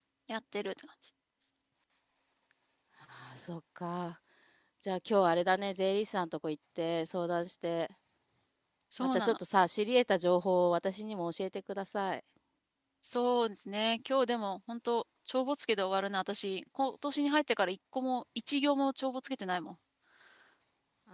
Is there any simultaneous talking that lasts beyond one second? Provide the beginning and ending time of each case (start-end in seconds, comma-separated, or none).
none